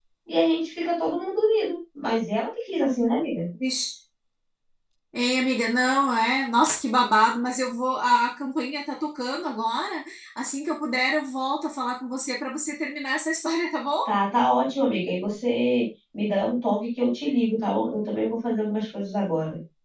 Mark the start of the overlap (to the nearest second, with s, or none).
none